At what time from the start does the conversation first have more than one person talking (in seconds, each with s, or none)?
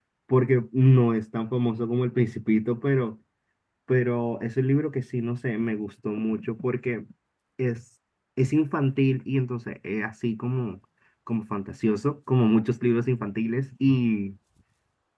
none